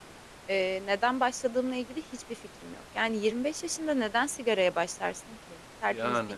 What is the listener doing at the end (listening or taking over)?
listening